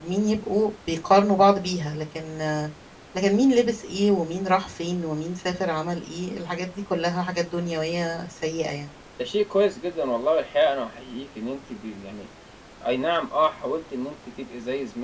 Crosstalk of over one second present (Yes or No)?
No